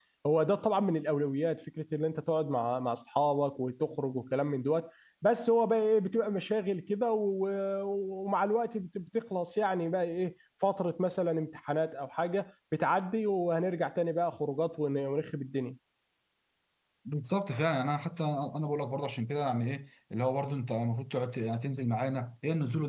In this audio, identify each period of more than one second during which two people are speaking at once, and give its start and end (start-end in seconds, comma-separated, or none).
none